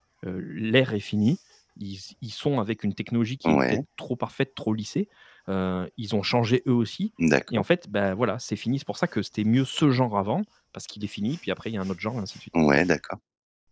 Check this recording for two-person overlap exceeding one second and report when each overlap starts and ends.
none

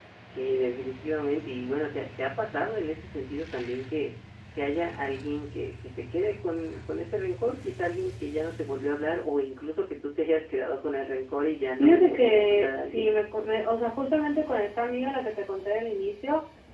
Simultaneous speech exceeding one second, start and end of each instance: 11.8-13.1

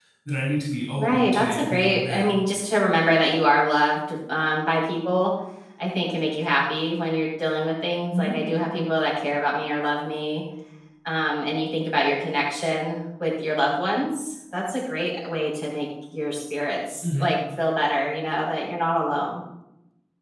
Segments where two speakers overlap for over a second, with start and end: 1.0-2.3

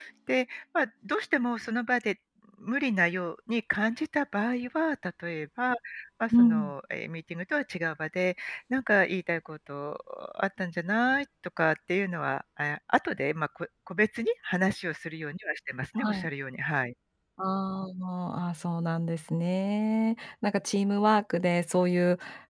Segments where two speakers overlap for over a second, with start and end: none

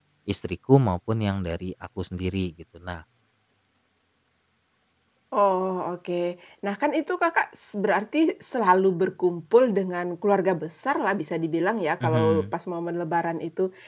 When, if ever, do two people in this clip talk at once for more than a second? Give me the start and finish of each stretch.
none

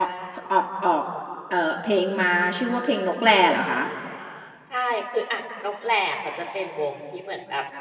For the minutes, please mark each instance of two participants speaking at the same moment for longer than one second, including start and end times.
none

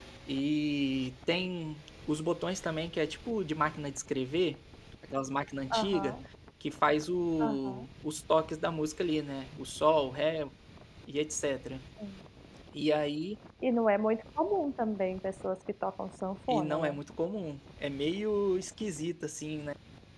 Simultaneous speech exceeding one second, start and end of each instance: none

